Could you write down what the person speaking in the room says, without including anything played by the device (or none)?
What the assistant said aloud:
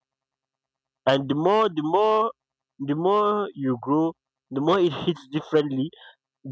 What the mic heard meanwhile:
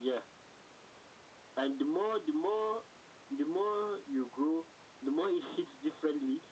none